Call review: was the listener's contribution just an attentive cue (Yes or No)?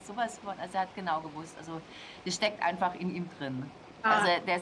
Yes